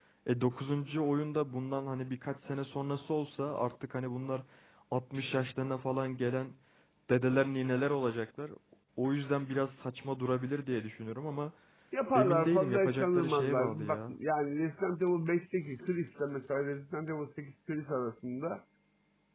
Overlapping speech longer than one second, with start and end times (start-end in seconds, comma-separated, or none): 12.2-14.1